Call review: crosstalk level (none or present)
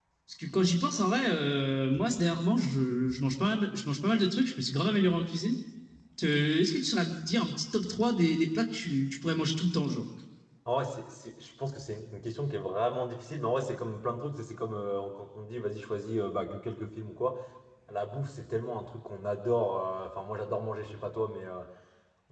none